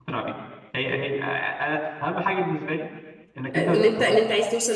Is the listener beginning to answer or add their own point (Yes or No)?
Yes